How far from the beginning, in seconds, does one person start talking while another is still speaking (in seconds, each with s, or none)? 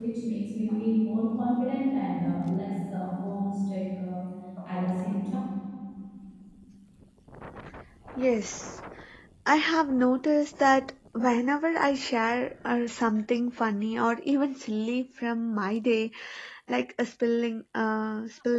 none